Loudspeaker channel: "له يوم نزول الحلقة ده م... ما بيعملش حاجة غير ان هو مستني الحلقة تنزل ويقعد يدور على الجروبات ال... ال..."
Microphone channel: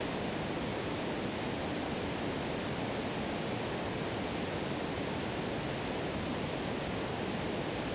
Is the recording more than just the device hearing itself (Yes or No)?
No